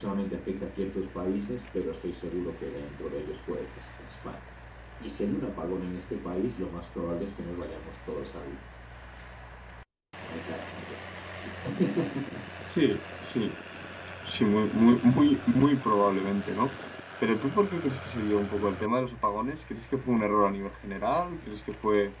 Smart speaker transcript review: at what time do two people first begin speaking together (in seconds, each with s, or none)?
none